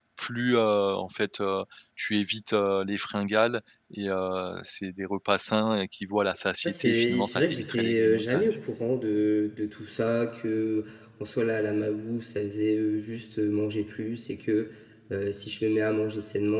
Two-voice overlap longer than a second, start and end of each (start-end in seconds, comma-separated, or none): 6.6-8.6